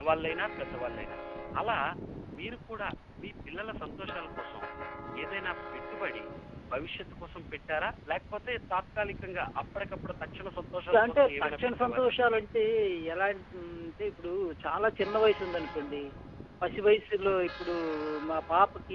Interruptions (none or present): present